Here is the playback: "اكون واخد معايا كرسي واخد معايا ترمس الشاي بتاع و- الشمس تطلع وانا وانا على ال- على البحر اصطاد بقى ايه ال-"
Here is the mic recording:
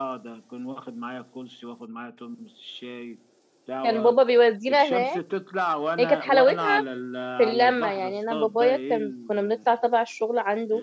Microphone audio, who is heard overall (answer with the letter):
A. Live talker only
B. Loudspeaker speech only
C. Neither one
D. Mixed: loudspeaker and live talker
D